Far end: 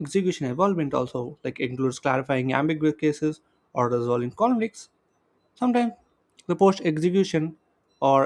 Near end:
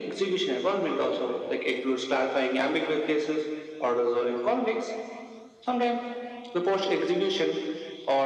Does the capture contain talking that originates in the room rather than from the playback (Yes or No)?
No